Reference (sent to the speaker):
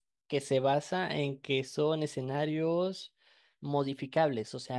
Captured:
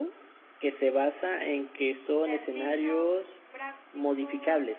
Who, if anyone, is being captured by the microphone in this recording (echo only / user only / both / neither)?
both